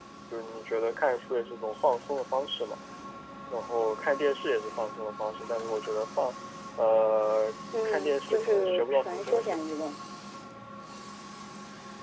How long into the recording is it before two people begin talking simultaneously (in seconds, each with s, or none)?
7.7 s